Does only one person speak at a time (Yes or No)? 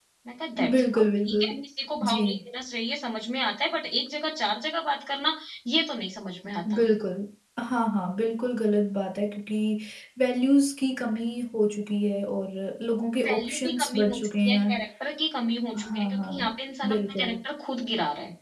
No